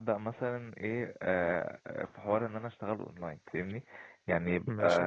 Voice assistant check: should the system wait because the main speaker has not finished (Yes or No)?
Yes